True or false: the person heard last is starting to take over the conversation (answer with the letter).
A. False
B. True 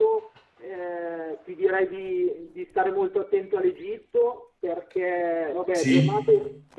A